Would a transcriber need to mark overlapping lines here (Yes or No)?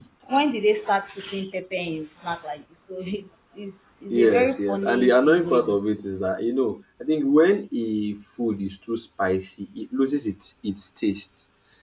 Yes